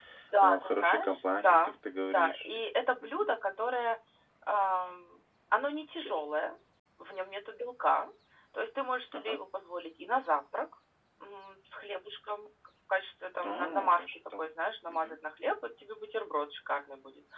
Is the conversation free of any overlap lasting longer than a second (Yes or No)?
No